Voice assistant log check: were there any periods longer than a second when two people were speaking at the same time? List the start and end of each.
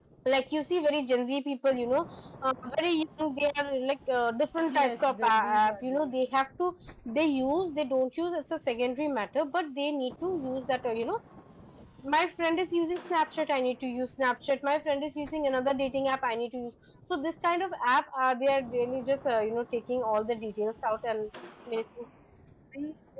4.8-6.1

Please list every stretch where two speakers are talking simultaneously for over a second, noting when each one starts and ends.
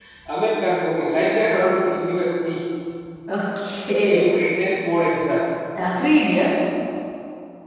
none

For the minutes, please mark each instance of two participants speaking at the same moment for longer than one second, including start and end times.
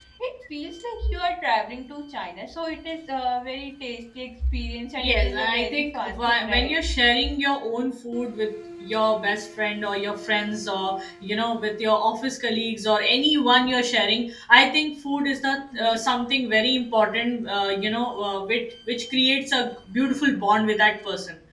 5.0-6.7

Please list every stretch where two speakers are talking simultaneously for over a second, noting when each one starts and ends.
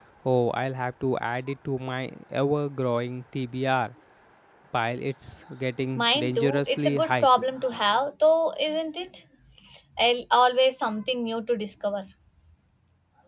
6.0-7.3

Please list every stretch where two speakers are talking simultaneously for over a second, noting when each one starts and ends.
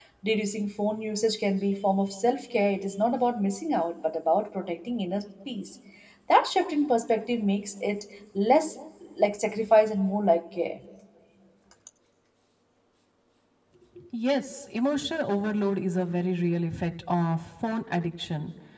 none

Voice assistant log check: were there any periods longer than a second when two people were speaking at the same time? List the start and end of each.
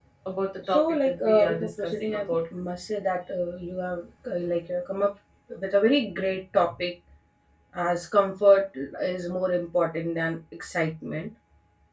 0.7-2.4

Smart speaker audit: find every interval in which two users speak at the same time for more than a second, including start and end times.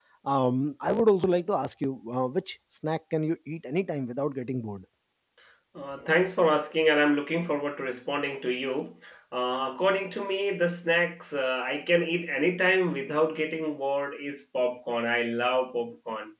none

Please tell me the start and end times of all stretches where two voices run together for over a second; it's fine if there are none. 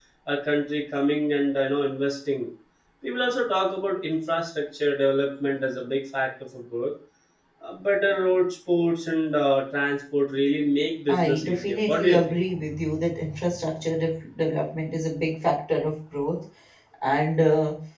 11.1-12.4

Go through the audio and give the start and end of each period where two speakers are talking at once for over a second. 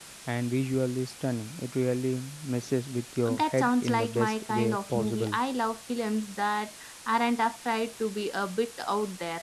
3.3-5.4

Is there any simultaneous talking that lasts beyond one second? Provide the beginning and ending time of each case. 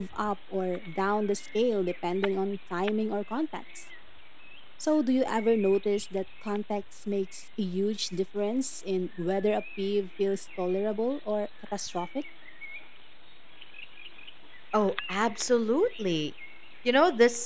none

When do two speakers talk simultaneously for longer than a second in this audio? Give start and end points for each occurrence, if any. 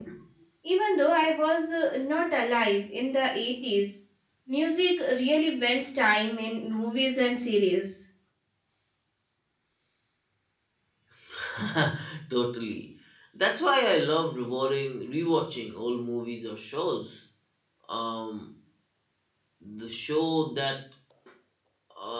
none

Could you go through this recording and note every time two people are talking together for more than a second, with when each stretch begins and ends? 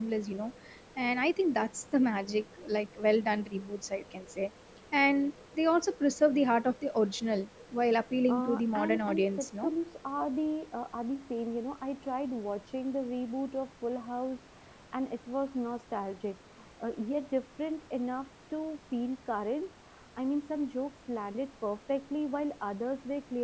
8.3-9.7

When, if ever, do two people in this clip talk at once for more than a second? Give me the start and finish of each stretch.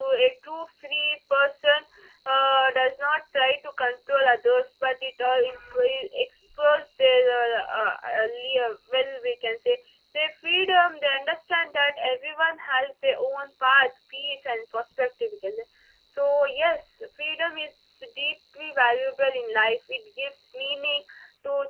none

